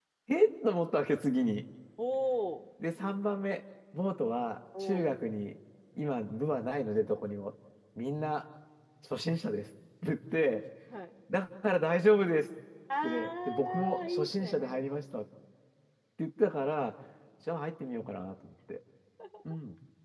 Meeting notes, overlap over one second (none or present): present